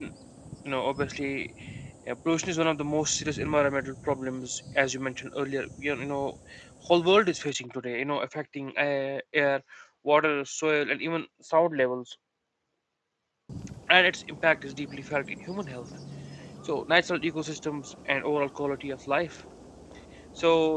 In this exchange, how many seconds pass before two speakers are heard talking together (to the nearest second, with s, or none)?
none